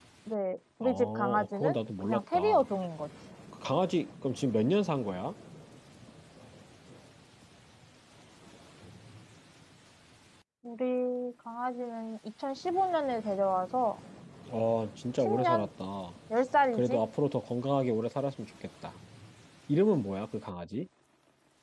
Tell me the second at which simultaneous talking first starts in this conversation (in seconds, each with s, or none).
0.8 s